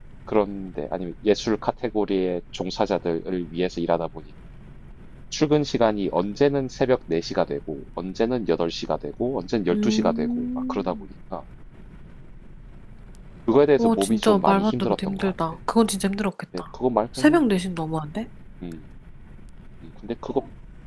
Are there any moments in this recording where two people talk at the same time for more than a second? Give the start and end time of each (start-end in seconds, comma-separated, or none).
9.7-11.0, 13.8-15.3